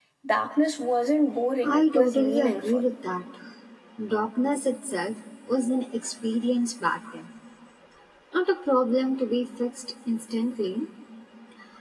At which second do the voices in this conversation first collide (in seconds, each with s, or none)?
1.6 s